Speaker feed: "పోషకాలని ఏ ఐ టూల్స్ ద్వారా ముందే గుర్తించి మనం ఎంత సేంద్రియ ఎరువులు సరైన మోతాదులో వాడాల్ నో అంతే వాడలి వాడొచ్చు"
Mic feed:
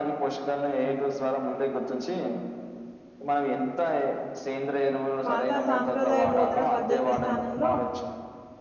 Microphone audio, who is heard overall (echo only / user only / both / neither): both